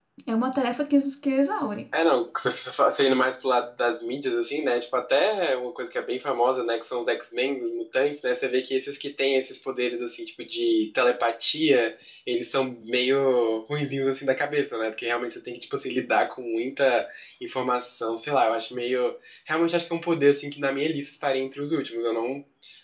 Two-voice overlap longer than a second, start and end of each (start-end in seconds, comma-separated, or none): none